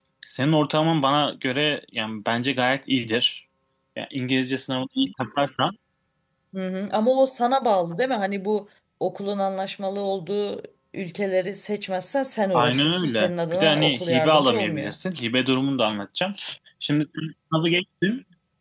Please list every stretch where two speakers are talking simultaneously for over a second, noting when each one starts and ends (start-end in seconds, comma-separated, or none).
12.5-14.9